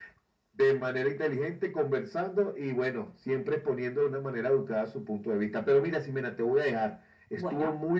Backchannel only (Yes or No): Yes